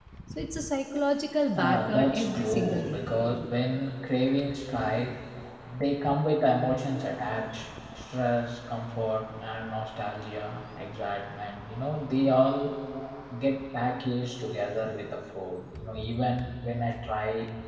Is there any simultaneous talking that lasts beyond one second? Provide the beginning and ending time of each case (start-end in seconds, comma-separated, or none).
1.6-3.0